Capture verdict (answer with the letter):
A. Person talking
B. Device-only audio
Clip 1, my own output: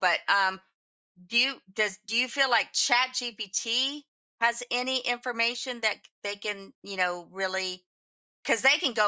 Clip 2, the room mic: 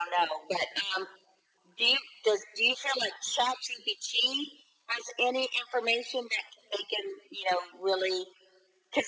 B